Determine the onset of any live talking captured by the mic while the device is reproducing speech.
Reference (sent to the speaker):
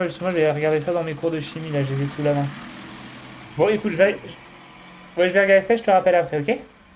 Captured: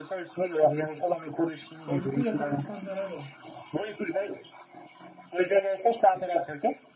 1.8 s

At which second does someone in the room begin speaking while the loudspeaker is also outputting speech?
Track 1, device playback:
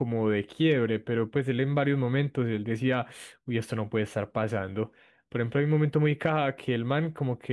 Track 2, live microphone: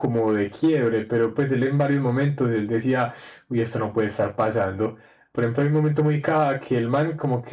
none

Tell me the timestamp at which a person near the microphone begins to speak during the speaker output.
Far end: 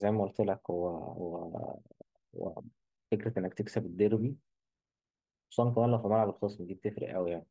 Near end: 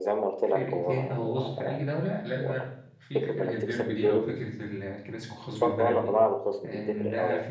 0.5 s

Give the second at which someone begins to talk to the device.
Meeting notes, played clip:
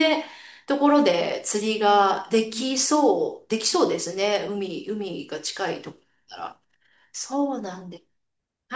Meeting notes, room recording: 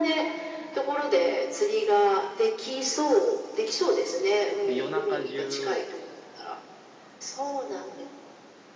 4.6 s

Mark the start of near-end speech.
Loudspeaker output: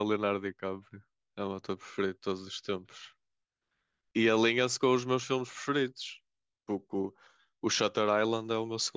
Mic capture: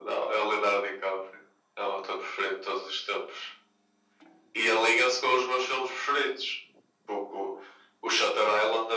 none

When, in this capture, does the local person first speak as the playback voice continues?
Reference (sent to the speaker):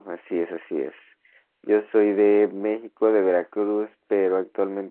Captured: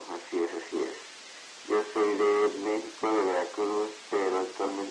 none

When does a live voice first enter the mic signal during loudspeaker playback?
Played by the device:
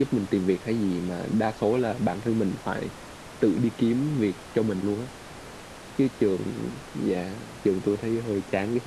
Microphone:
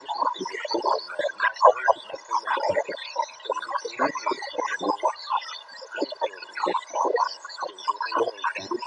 none

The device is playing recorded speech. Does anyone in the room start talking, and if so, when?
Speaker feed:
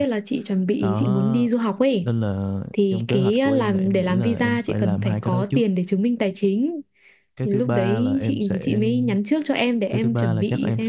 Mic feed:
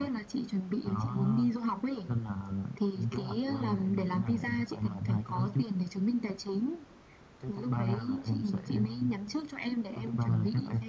none

